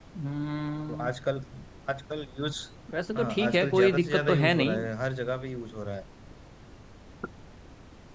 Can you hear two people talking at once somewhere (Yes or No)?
Yes